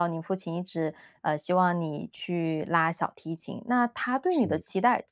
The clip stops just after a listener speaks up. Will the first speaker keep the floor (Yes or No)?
Yes